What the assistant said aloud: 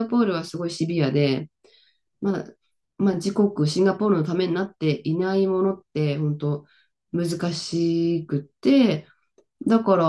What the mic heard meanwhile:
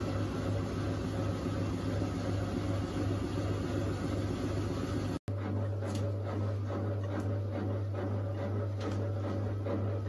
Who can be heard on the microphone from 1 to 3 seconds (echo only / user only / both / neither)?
neither